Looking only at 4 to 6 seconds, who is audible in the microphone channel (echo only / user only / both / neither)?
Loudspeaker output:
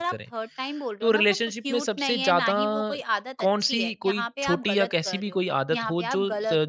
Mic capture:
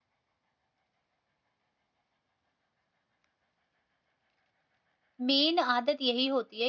user only